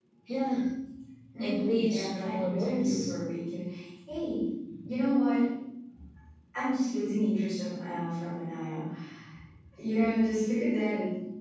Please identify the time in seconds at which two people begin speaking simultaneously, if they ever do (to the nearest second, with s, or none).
1 s